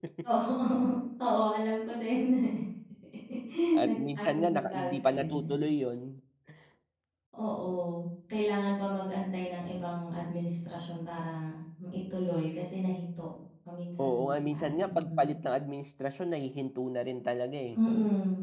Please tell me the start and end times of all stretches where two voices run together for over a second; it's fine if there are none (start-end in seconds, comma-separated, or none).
3.8-5.6, 14.0-15.3